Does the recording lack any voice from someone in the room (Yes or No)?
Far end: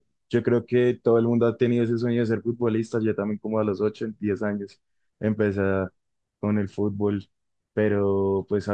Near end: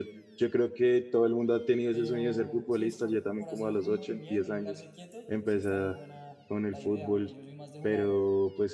No